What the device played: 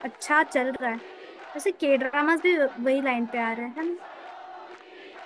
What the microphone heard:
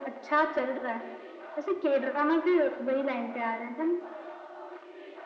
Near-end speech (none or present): none